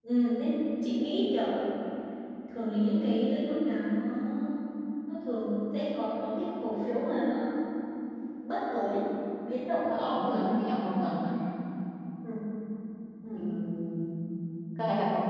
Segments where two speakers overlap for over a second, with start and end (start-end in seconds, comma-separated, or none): 9.8-11.2